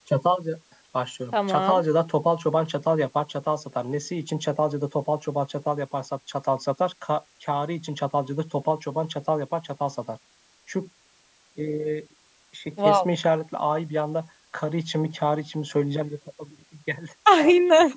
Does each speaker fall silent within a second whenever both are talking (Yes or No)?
Yes